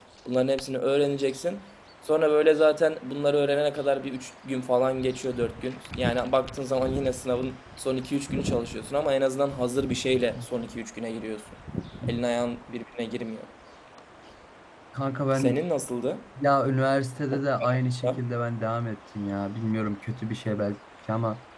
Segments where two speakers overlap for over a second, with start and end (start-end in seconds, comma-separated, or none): none